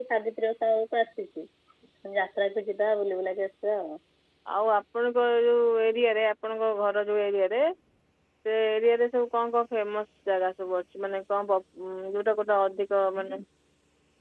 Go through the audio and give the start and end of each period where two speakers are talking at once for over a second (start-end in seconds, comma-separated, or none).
none